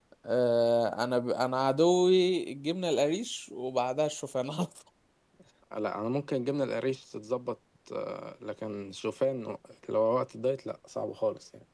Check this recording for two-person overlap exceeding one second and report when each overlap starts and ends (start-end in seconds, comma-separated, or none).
none